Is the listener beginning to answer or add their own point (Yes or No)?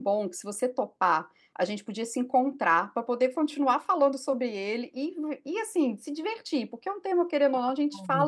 No